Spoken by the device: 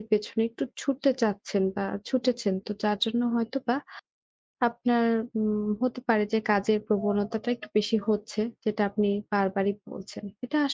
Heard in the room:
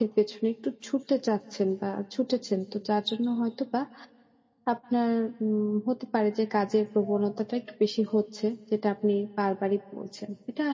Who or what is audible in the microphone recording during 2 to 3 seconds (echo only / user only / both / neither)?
echo only